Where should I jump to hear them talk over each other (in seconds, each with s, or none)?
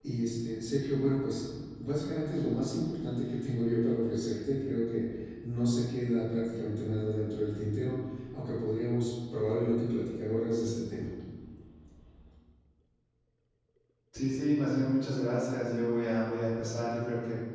none